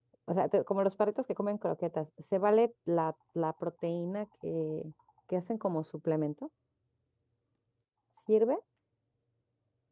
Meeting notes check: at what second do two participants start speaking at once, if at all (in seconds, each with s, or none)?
none